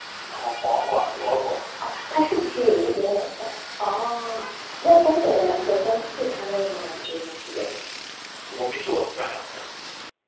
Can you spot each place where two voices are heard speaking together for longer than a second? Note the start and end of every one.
none

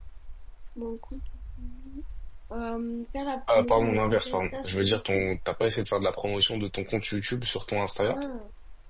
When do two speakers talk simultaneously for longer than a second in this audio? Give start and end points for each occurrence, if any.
3.5-5.3

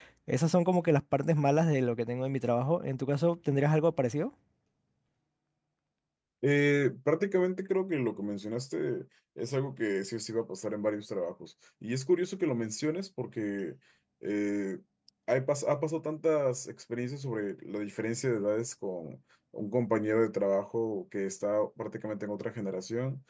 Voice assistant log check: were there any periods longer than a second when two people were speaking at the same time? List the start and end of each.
none

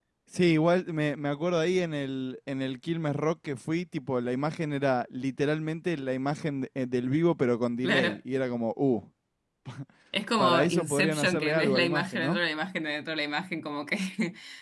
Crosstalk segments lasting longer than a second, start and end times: 10.4-12.4

